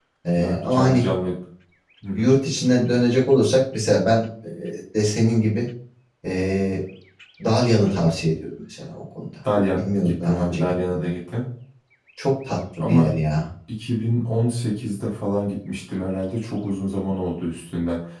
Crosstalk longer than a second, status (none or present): present